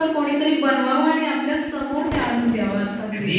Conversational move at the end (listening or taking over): taking over